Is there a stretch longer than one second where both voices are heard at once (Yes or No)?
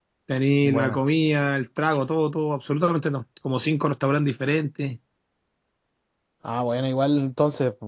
No